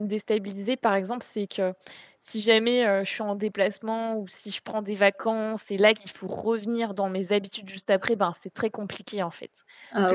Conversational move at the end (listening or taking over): listening